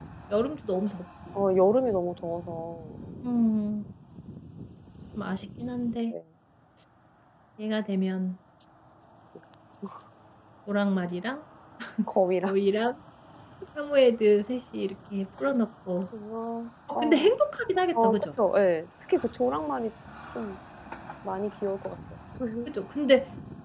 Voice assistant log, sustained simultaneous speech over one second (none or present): none